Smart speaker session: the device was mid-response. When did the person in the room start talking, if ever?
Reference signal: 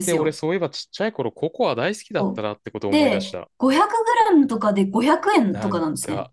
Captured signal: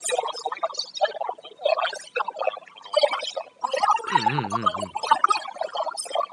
4.1 s

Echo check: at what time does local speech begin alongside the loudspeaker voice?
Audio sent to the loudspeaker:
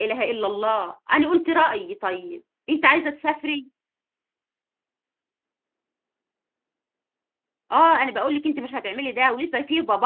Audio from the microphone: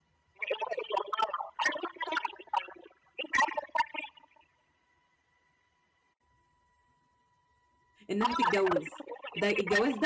8.1 s

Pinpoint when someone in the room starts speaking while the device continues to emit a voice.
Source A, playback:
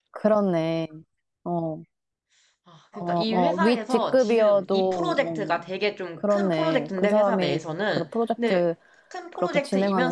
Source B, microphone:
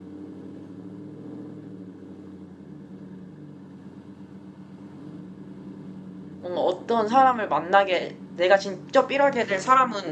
6.4 s

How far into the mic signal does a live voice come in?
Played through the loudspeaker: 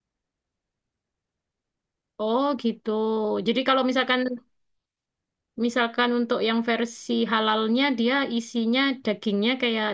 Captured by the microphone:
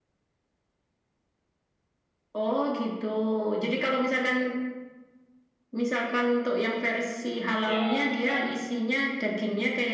7.7 s

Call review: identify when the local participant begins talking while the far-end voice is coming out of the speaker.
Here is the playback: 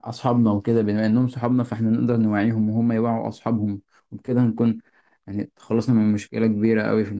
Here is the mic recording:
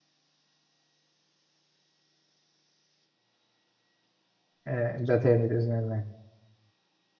4.7 s

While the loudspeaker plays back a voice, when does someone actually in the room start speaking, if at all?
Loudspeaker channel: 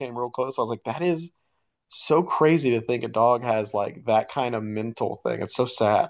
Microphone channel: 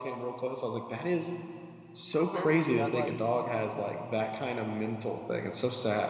2.1 s

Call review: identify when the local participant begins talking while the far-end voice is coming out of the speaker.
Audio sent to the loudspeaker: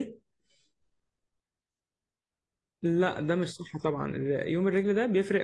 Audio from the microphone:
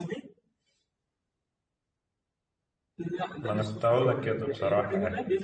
3.4 s

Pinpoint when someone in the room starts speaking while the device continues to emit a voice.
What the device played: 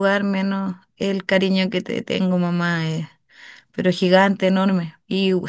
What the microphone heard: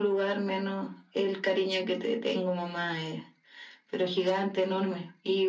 none

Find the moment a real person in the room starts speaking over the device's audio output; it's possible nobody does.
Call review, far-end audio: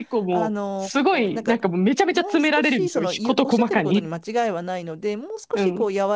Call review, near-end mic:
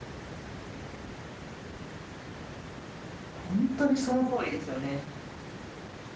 3.3 s

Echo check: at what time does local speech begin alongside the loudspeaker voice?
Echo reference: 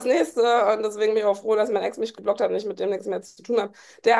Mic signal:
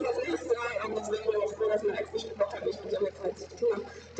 none

